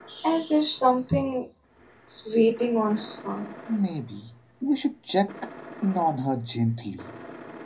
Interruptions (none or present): none